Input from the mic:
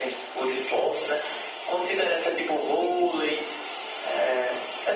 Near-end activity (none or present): none